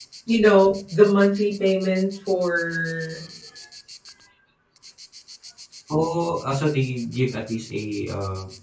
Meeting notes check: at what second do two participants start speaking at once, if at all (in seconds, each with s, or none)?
none